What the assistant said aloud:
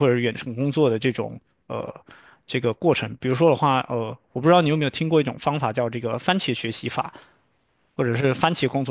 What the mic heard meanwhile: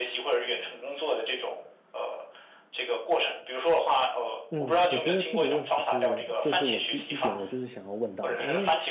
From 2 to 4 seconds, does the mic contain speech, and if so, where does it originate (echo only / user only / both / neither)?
echo only